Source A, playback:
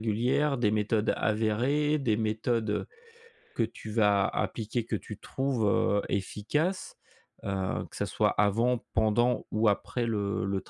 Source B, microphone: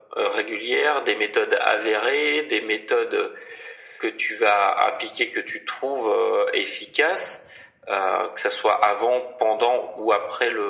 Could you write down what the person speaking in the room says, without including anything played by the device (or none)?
none